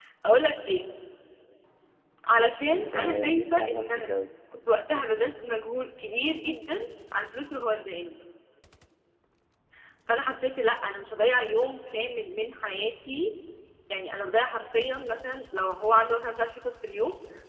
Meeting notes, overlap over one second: present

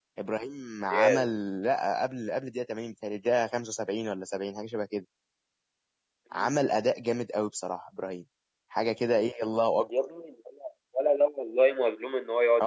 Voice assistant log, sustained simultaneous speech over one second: none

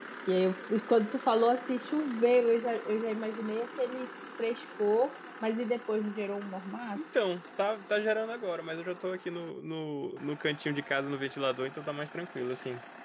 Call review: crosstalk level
none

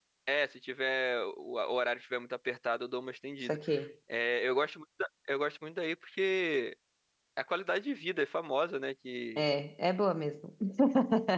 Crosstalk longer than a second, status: none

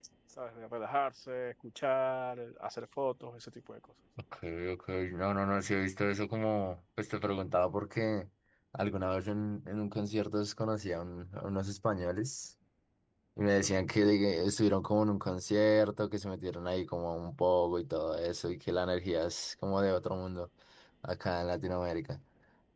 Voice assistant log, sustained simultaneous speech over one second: none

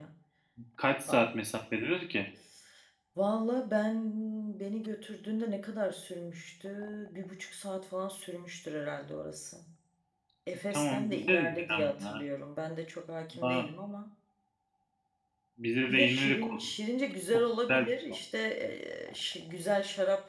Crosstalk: present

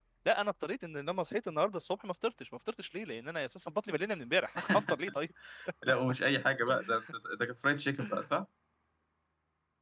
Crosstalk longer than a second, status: none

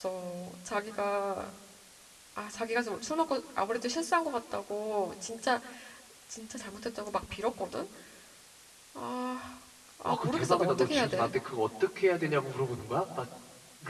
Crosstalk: present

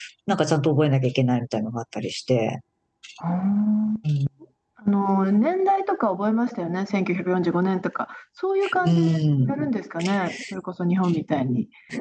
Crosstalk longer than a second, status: none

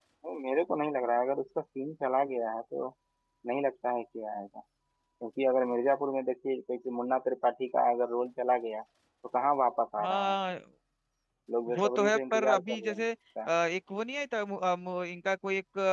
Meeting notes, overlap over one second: present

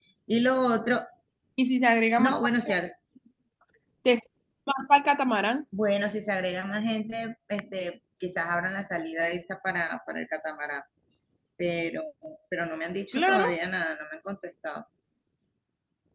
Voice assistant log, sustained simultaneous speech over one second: none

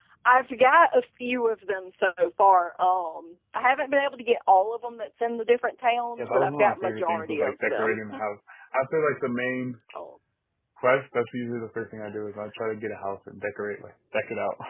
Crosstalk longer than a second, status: present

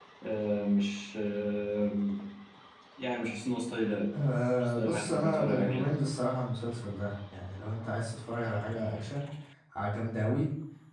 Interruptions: present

